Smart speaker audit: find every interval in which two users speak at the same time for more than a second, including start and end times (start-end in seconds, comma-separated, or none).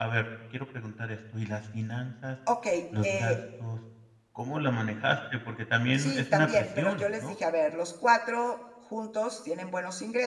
6.0-7.3